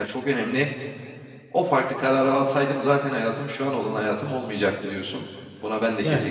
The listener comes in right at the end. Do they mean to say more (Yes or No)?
No